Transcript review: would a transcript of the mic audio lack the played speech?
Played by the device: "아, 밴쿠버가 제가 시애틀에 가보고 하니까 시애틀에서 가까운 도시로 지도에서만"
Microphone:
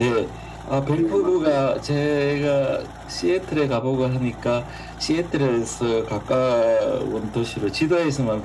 No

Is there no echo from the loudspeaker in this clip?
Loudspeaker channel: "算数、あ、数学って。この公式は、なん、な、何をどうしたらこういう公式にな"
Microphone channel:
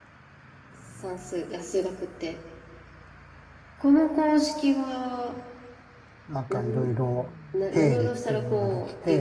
No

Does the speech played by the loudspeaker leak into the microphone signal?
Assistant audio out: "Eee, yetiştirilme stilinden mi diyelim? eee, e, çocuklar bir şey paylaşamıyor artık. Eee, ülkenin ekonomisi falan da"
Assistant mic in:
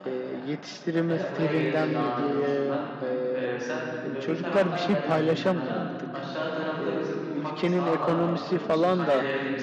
Yes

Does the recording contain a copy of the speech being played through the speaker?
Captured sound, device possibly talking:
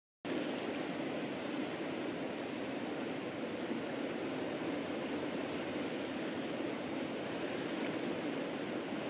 No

